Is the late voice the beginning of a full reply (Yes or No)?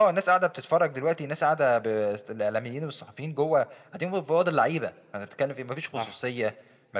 No